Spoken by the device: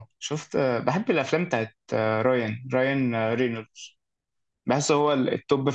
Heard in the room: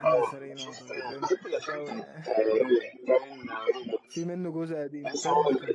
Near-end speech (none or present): present